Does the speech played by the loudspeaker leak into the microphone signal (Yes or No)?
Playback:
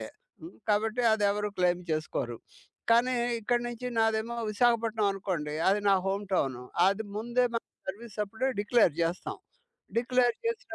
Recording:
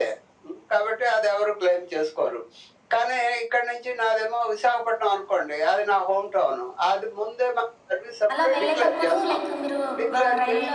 Yes